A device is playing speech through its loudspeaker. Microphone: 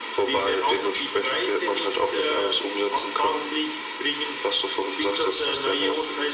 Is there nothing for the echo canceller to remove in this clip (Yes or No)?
No